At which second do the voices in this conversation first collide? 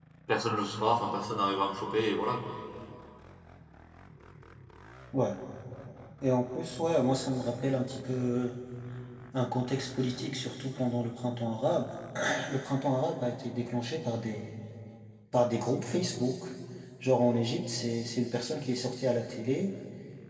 none

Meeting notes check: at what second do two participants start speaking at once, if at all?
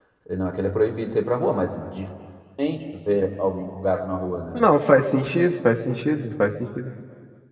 none

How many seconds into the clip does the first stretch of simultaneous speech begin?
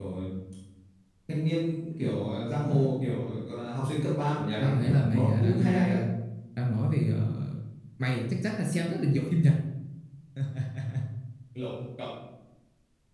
4.6 s

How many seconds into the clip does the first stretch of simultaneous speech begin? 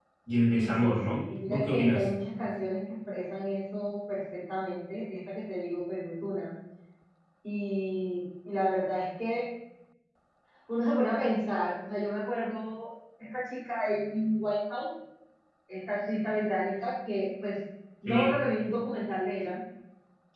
0.5 s

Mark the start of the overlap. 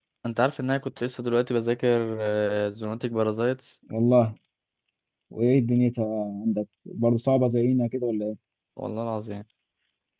none

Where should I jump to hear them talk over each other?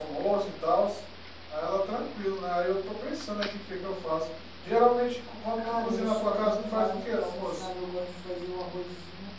5.6 s

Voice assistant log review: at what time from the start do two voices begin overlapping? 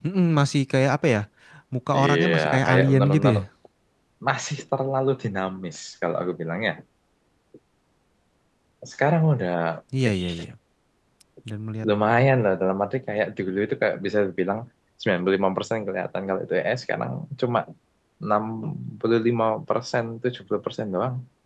2.0 s

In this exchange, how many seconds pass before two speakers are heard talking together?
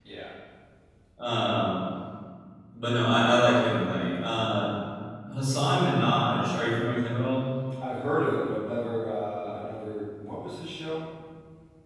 none

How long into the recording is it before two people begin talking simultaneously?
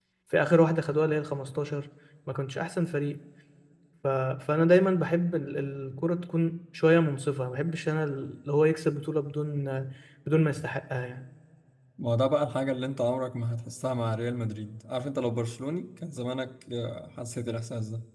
none

